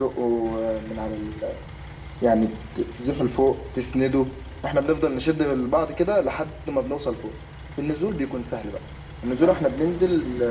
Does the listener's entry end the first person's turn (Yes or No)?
No